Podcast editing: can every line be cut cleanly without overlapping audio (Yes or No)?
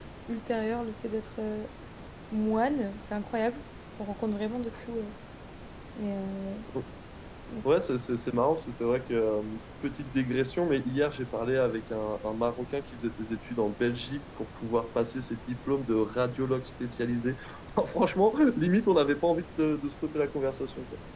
Yes